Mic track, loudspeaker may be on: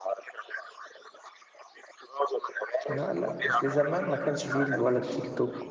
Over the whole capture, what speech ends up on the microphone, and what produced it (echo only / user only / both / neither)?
both